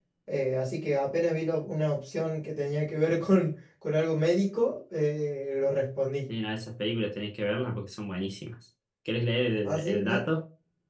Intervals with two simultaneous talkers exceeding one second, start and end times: none

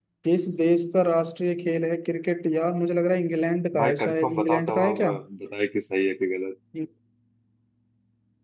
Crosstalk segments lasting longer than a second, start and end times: 3.8-5.0

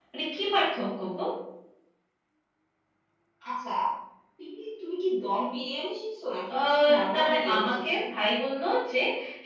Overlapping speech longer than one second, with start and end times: 6.5-8.0

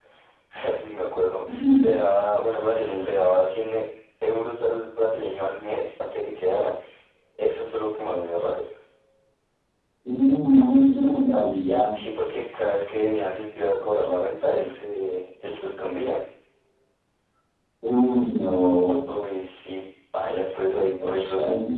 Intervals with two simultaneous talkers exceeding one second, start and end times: none

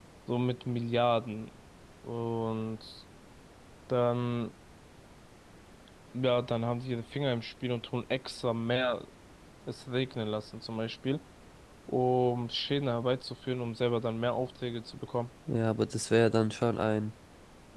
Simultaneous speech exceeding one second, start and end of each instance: none

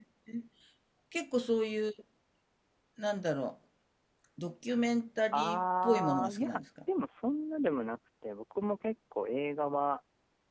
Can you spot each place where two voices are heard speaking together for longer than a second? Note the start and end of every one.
5.3-6.6

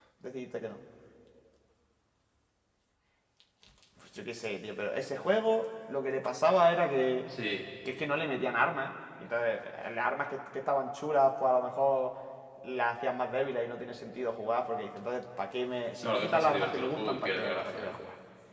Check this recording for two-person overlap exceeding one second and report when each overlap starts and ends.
16.0-17.9

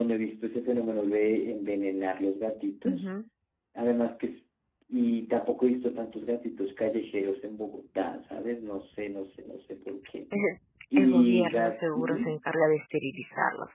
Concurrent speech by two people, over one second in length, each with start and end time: 11.0-12.3

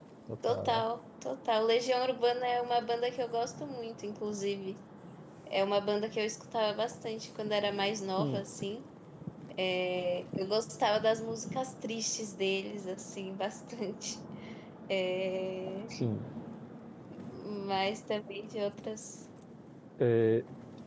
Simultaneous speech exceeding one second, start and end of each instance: none

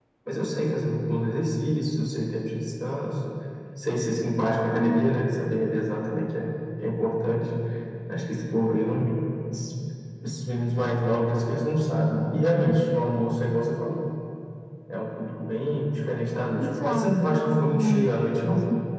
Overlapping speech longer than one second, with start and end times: 16.6-18.1

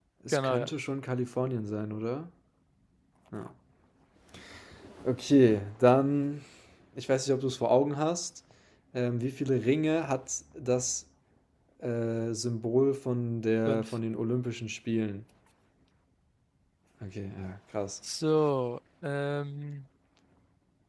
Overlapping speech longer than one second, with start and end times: none

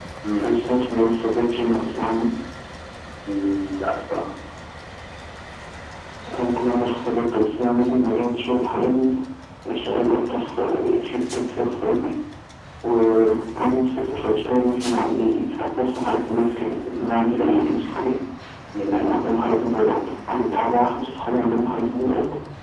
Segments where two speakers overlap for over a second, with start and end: none

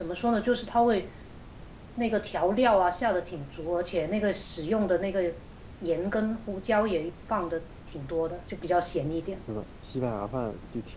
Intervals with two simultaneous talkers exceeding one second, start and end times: none

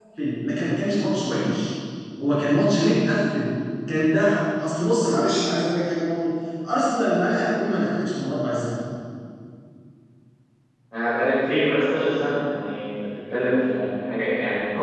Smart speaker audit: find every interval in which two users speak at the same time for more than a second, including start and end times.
none

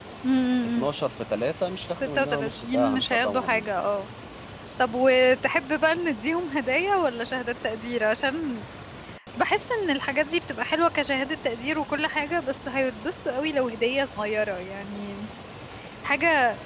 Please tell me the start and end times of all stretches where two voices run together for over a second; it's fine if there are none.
2.0-3.8

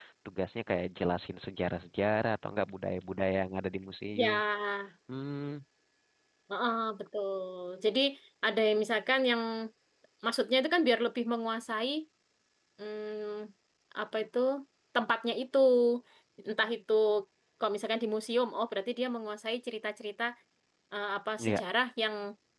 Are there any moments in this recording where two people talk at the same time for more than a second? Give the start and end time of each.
none

